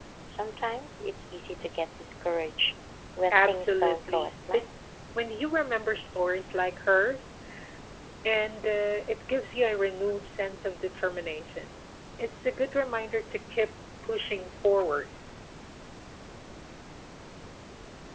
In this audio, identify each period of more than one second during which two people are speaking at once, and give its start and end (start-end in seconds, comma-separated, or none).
3.3-4.7